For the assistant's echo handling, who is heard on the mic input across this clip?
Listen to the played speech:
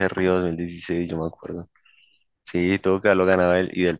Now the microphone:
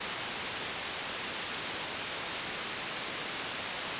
neither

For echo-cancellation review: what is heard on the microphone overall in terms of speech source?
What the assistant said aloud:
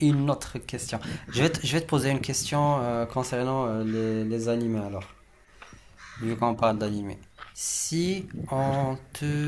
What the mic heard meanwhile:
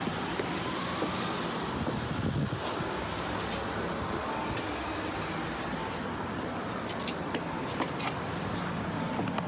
neither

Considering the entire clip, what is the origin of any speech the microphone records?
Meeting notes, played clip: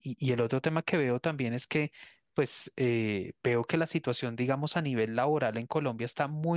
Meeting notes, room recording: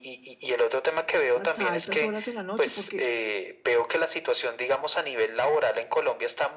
both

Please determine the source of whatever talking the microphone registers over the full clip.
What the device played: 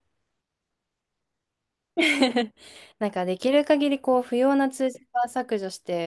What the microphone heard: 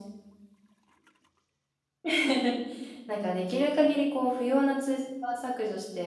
echo only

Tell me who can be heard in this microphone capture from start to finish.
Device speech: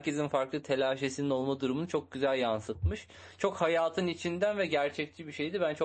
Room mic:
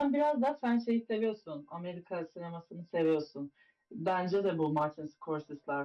user only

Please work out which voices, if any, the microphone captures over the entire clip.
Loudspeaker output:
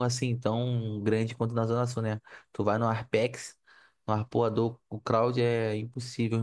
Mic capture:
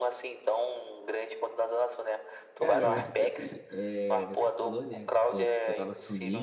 both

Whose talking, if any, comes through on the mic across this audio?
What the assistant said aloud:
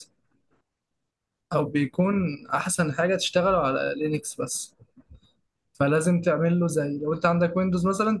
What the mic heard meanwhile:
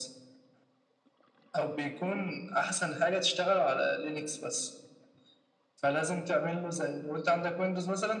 echo only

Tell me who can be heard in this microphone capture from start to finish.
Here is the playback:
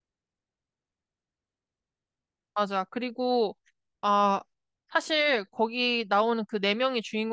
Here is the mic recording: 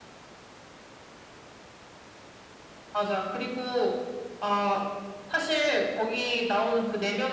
echo only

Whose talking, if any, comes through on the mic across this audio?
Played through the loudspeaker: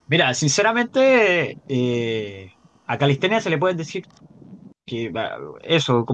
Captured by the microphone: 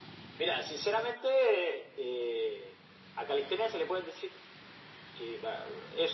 echo only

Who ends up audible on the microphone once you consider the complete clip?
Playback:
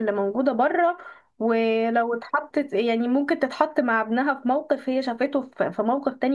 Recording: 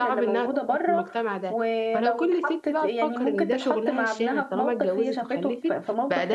both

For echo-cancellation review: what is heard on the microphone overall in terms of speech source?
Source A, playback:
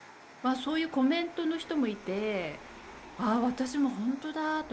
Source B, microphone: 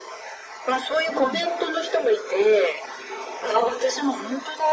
both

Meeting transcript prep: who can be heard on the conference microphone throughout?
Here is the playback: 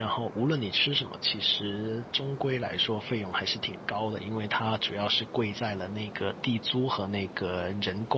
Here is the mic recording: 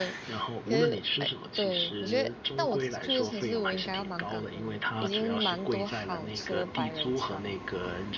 both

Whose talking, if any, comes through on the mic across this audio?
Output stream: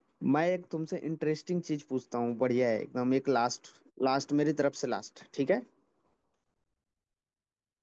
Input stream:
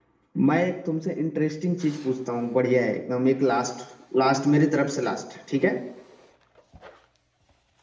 echo only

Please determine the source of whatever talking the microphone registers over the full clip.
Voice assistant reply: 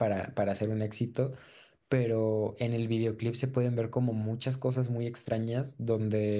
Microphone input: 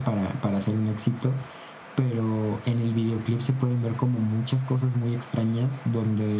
echo only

